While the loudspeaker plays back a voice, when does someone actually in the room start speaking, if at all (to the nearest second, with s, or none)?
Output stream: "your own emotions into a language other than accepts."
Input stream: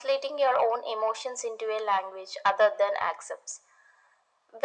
none